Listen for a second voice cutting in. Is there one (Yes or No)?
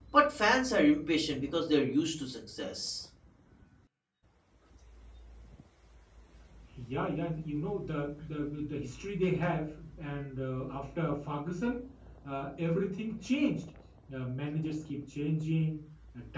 No